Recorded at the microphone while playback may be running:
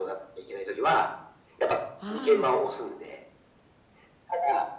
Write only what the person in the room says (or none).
はい。